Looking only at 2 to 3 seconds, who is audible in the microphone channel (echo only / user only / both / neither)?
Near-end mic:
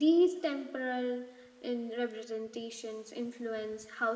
echo only